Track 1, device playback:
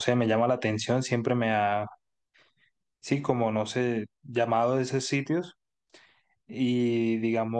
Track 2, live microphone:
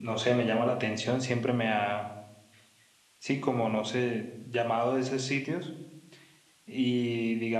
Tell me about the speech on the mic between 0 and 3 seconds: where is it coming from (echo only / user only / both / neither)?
echo only